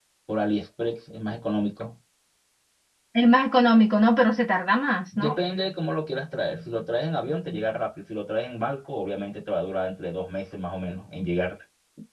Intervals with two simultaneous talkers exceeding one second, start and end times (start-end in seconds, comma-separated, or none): none